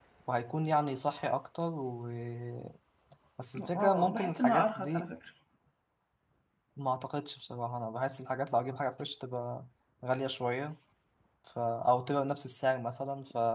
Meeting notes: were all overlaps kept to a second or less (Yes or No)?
No